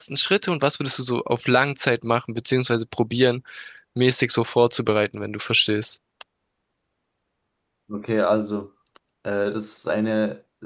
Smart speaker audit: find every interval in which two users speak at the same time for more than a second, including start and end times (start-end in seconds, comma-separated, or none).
none